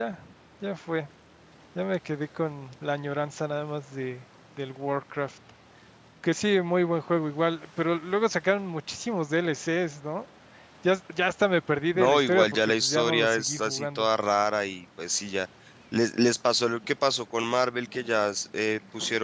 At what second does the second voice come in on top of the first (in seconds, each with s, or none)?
12.0 s